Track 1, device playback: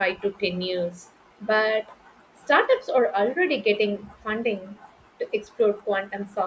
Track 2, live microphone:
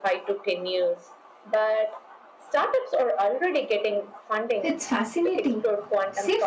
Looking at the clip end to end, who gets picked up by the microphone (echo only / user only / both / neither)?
both